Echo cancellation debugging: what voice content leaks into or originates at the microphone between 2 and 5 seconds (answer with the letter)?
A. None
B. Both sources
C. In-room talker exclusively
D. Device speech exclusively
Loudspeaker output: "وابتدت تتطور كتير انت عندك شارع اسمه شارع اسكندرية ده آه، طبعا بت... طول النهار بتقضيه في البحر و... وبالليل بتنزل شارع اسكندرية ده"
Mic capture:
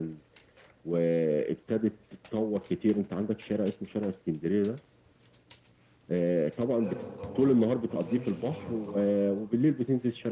D